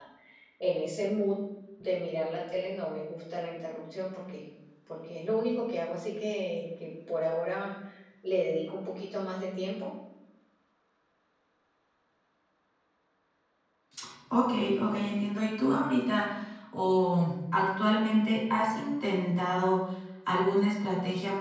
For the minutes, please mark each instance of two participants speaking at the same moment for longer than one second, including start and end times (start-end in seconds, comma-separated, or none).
none